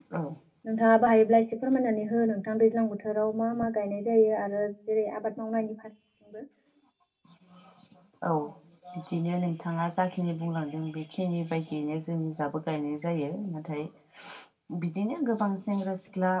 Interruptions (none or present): none